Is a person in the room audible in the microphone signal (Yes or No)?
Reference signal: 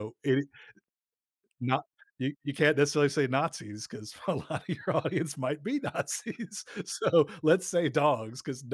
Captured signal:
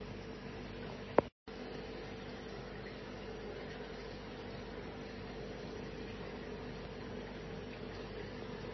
No